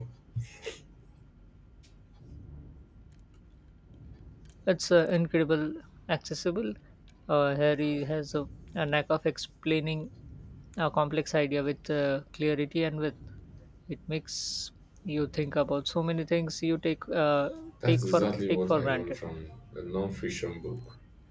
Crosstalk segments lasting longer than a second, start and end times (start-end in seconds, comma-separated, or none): 17.9-19.2